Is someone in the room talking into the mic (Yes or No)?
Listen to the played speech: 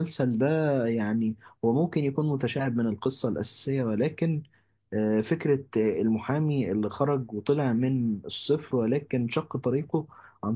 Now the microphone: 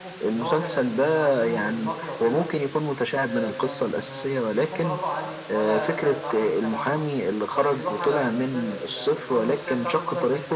Yes